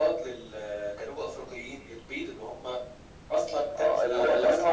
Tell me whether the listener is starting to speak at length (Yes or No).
Yes